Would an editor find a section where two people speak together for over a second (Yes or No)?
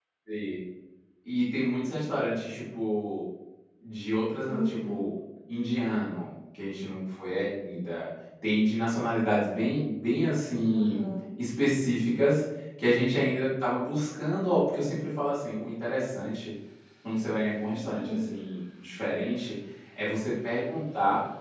No